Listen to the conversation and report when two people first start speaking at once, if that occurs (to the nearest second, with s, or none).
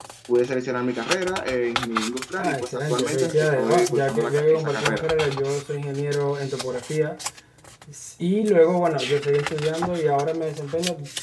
2 s